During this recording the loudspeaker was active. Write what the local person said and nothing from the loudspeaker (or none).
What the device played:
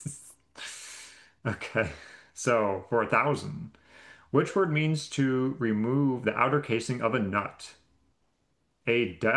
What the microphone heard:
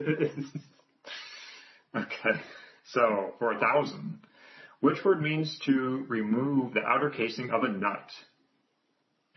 none